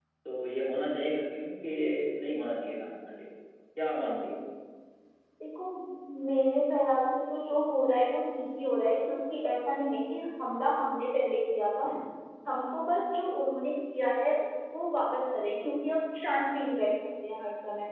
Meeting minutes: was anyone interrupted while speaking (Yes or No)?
No